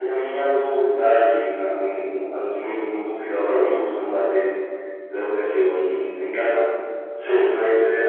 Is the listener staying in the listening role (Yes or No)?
Yes